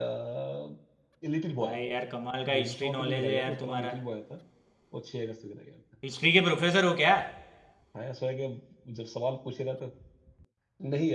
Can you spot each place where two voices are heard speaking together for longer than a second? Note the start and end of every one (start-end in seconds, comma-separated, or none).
2.5-4.0